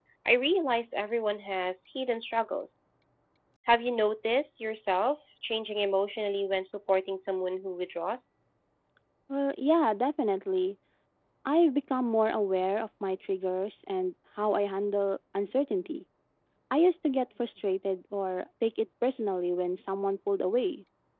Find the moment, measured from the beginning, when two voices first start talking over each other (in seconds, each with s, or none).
none